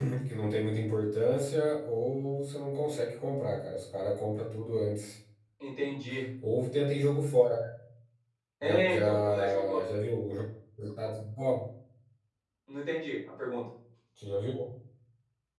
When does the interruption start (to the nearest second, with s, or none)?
9 s